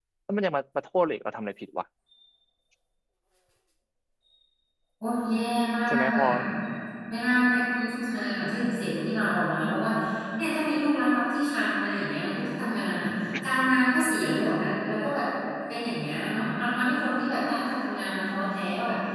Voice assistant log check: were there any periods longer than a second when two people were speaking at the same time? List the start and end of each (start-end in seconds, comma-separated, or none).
none